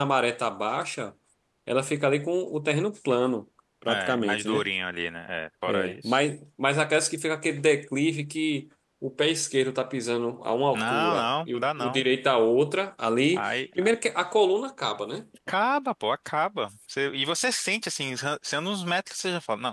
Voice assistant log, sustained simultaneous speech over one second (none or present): present